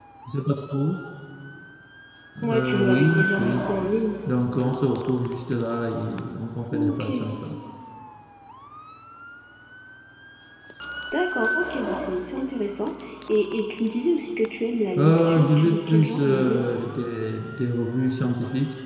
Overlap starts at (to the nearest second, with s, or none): 2 s